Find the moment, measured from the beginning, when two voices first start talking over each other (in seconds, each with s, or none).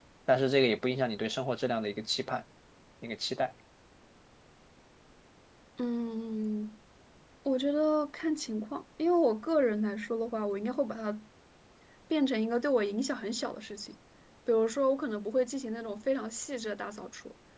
none